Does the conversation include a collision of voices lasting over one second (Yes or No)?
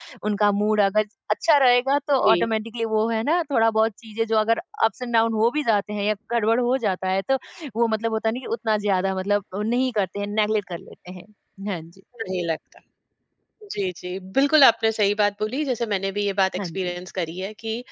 No